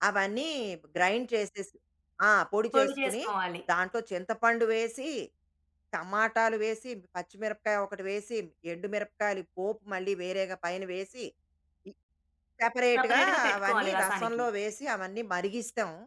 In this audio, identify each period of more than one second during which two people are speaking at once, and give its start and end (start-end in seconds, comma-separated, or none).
12.9-14.4